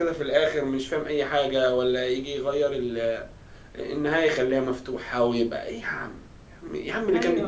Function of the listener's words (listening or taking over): listening